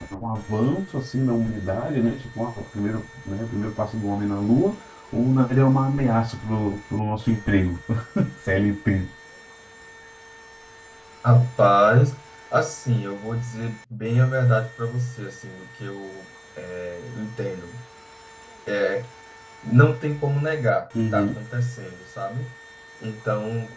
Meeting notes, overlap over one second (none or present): none